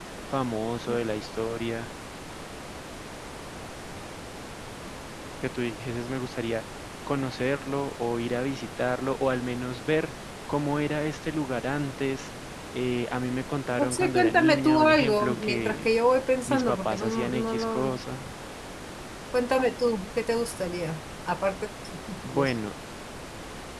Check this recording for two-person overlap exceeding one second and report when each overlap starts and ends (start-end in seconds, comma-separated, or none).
13.8-15.9, 16.5-18.0